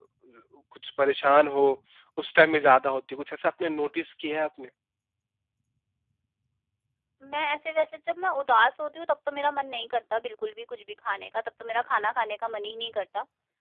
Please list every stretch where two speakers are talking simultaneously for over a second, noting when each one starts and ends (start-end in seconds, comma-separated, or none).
none